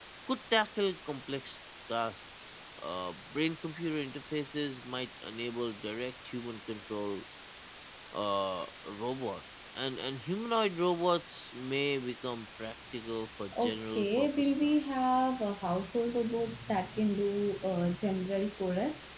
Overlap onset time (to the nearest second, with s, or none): 14 s